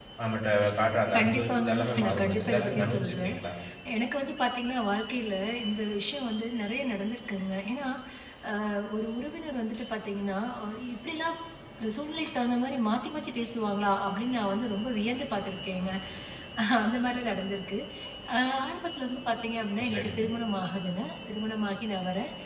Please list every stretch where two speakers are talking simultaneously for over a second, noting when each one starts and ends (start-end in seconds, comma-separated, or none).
1.2-3.3